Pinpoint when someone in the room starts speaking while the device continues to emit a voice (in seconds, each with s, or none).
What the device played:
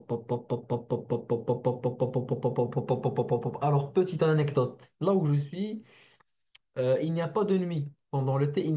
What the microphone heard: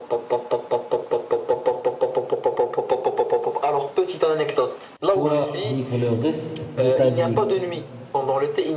5.0 s